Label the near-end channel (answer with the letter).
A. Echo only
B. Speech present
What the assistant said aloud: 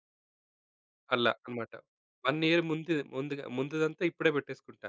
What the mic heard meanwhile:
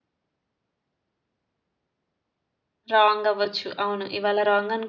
B